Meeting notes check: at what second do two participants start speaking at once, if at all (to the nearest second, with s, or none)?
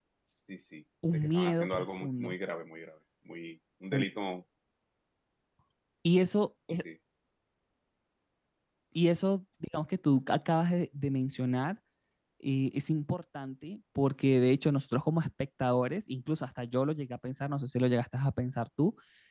1 s